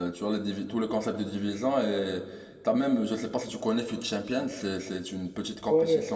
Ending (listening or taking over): taking over